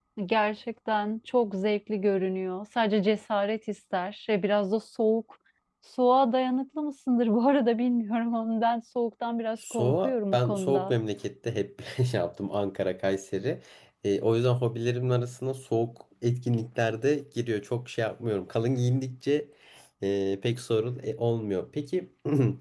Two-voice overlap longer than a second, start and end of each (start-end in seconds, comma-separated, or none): 9.7-10.9